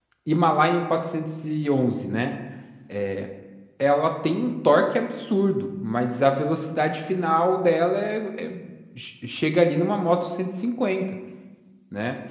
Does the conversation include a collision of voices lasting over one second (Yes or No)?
No